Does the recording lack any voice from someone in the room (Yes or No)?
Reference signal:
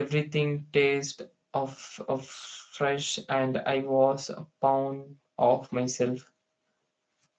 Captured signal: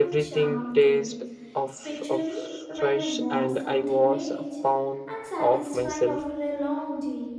No